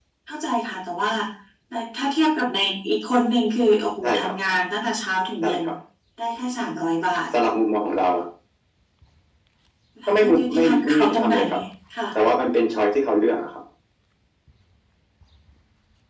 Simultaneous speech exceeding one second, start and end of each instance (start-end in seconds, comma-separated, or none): 10.1-11.3